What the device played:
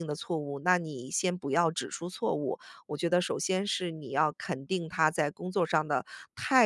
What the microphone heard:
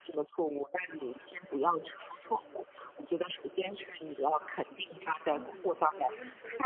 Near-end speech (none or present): present